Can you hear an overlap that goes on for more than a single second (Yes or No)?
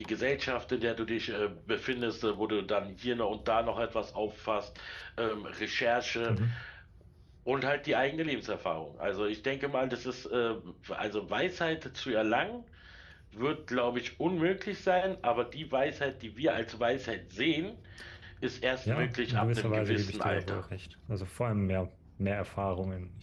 Yes